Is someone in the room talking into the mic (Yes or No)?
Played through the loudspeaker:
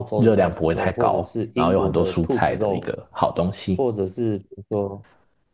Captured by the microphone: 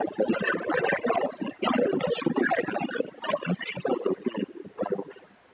No